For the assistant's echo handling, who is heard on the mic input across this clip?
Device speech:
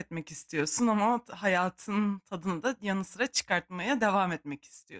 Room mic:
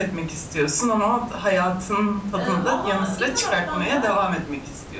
both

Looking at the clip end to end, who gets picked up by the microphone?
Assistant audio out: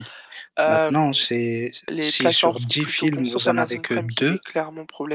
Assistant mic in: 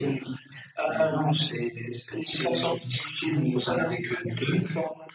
echo only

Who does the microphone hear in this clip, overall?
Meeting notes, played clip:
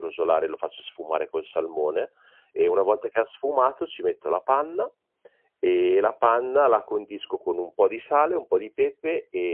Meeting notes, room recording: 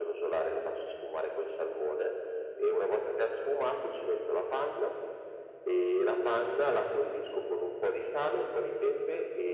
echo only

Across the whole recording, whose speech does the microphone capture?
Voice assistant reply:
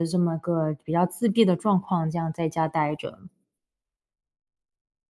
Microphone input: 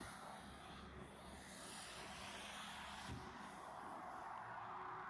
neither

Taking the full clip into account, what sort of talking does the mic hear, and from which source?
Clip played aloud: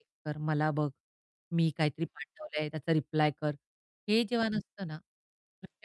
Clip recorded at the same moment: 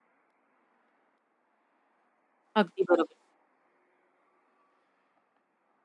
user only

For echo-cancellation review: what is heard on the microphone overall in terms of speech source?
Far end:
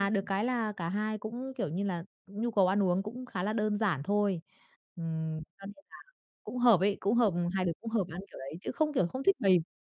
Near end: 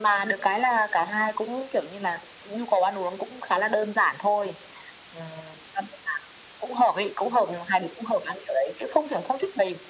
echo only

